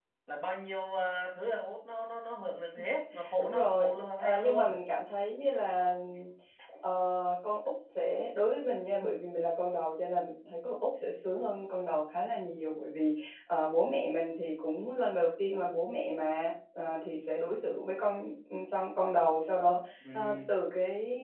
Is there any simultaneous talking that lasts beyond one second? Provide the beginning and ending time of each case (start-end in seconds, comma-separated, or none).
3.4-4.8